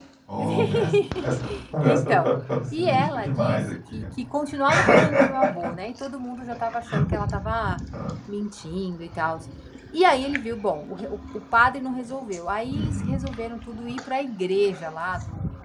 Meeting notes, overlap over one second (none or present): present